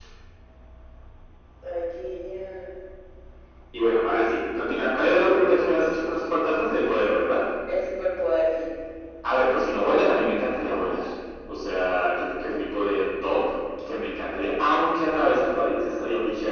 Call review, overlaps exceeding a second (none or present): none